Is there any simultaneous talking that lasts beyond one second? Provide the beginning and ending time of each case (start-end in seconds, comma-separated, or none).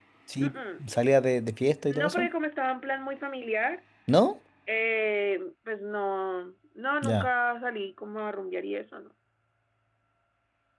none